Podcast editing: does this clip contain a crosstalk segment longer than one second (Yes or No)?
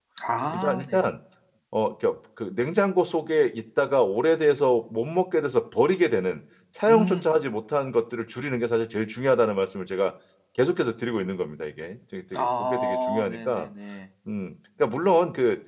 Yes